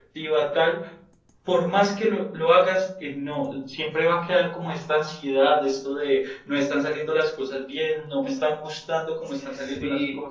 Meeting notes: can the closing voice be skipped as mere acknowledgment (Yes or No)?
No